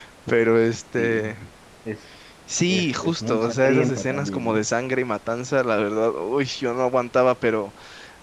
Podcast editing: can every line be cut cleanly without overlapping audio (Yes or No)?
No